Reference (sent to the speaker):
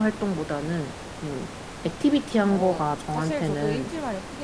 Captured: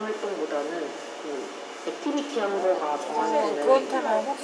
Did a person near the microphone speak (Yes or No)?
Yes